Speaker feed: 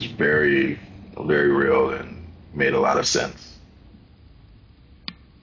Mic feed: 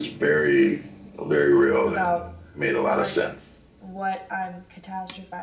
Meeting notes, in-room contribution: present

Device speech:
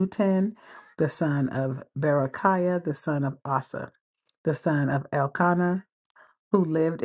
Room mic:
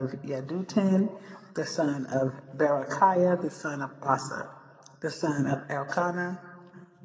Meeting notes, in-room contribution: none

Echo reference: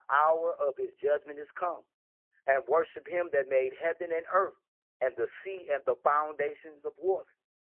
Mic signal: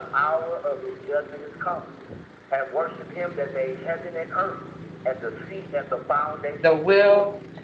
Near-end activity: present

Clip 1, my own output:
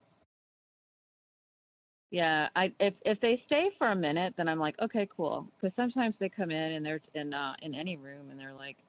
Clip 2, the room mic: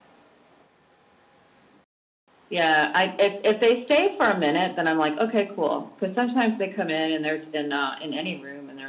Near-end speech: none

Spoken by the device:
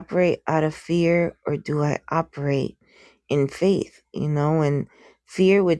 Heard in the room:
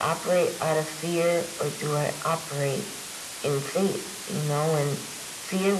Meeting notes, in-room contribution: none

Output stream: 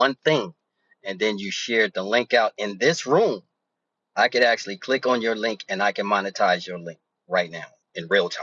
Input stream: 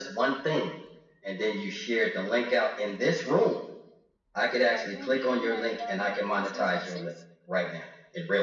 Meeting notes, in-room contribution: present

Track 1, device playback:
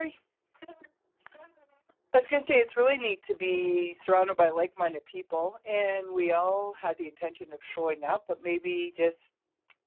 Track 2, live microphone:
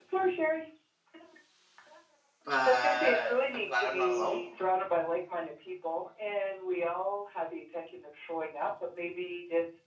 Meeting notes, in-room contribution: present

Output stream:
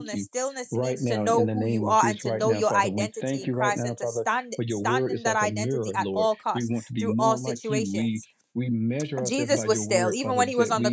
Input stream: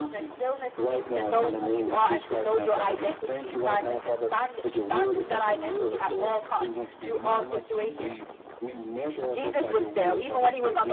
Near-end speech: none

